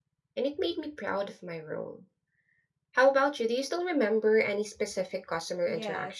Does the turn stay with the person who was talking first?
No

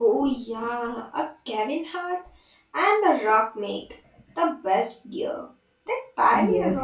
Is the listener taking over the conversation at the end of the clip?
Yes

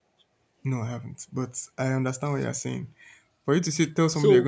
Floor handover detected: No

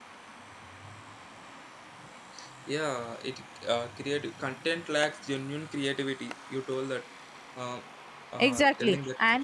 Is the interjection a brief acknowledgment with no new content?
No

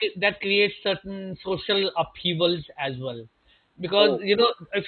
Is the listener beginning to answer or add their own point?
No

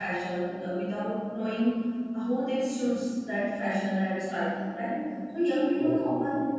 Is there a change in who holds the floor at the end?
No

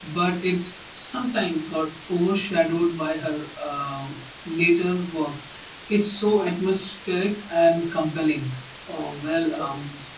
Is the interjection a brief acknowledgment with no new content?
Yes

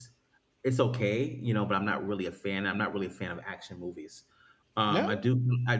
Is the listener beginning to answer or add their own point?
No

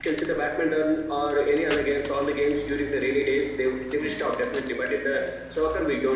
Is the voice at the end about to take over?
No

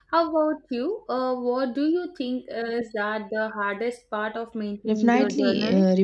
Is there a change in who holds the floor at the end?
Yes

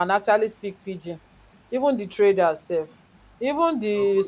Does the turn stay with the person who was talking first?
Yes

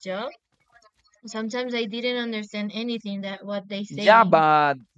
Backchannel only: No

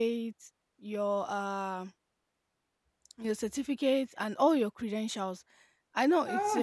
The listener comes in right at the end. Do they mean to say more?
No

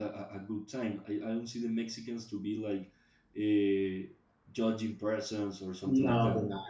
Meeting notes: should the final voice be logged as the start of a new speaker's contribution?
Yes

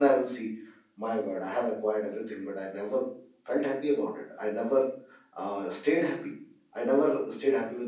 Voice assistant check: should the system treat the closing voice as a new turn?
No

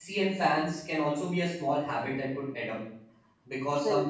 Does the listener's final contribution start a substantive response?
No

